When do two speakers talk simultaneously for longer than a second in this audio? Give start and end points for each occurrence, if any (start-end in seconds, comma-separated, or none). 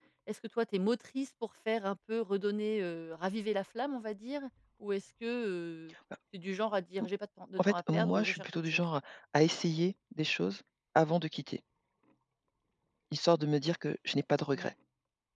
7.6-8.8